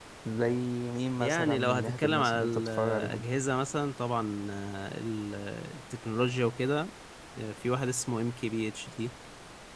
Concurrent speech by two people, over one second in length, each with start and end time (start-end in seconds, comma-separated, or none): 1.2-3.2